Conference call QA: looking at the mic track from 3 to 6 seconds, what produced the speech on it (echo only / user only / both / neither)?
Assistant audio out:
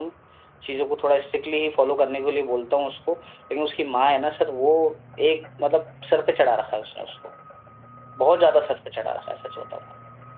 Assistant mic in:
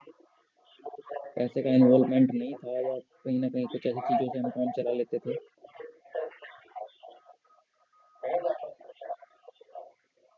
both